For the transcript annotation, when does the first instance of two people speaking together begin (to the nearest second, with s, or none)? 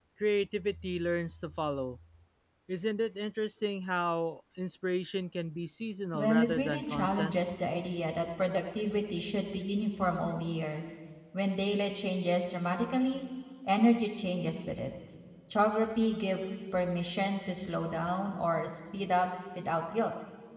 6 s